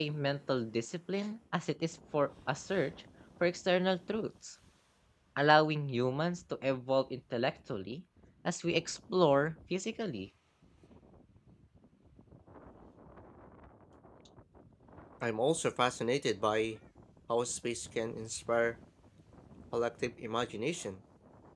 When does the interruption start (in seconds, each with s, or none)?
none